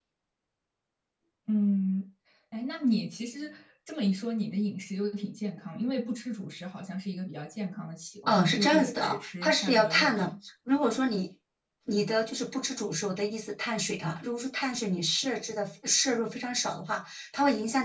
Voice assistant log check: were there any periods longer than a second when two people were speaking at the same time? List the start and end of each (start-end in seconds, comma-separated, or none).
8.3-10.3